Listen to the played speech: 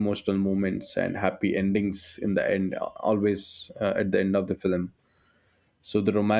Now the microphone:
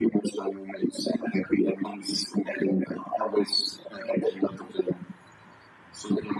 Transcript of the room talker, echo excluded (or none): none